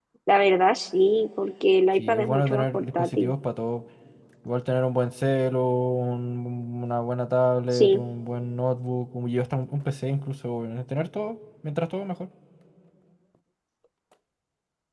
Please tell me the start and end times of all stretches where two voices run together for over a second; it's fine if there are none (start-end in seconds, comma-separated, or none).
2.0-3.3